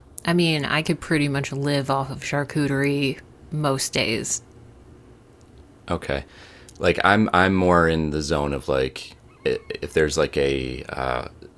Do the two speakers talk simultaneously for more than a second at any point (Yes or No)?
No